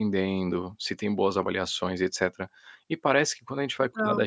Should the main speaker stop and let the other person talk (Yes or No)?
No